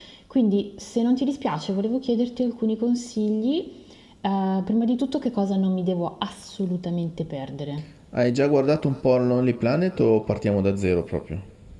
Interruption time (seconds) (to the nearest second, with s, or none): none